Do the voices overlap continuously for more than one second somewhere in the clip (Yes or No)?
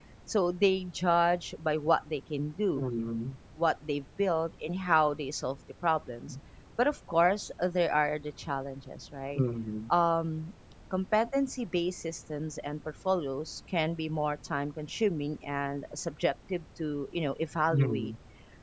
No